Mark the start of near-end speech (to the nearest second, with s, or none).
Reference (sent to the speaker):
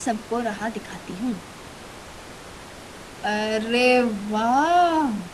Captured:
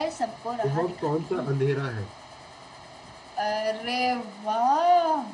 1 s